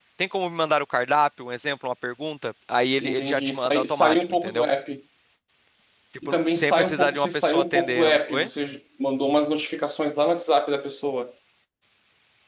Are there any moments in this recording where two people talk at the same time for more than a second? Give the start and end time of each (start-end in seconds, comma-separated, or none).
3.0-4.7, 6.2-8.5